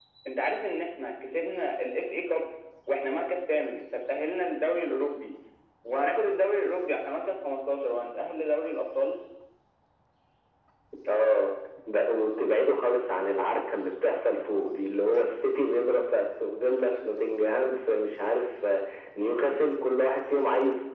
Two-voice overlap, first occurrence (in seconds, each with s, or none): none